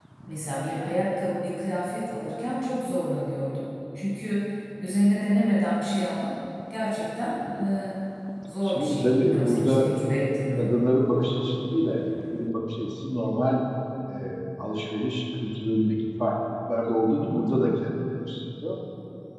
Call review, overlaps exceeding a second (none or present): present